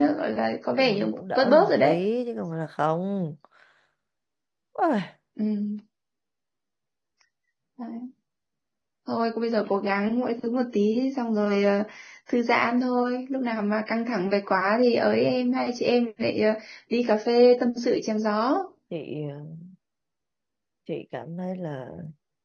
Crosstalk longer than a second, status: present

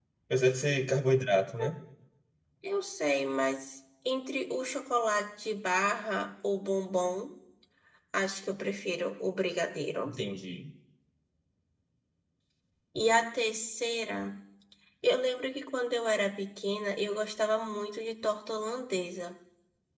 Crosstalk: none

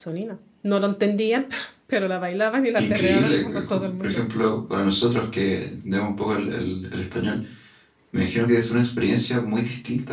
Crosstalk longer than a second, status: present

